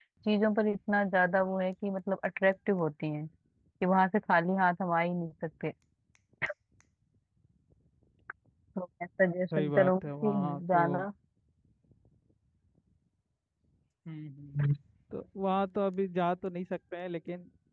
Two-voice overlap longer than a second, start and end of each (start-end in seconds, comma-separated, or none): 9.6-10.8